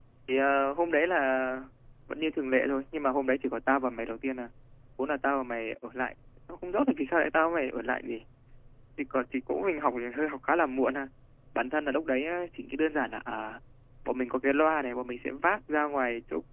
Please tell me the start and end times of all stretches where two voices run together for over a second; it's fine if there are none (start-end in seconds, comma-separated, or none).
none